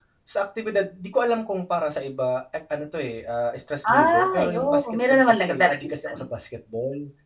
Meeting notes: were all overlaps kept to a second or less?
No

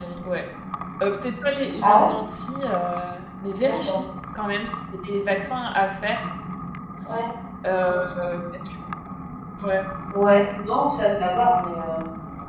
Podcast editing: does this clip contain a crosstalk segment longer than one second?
No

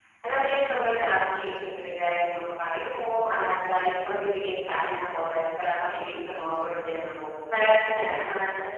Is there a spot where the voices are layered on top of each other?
No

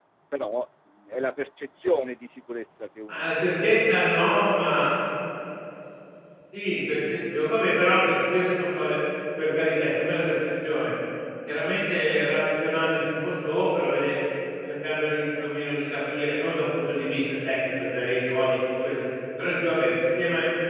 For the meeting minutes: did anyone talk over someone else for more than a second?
No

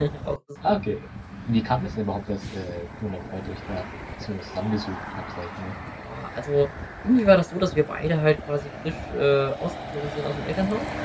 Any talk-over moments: No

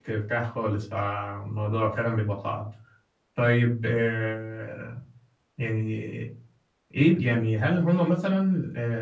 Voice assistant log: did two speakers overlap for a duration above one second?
No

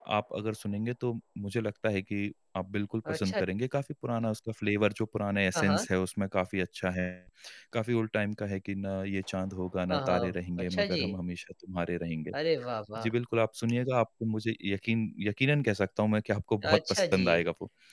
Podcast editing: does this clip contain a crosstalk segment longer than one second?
Yes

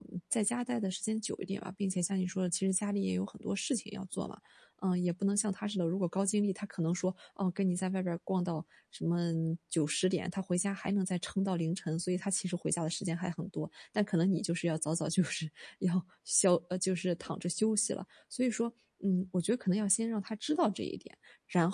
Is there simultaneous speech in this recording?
No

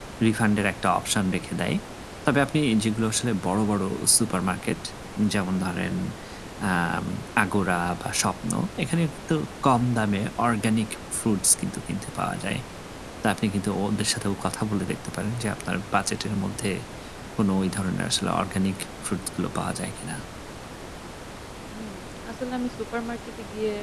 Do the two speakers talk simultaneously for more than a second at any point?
No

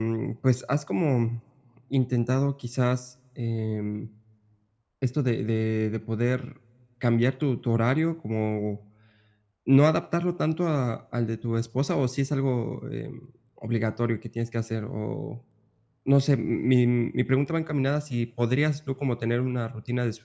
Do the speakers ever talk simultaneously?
No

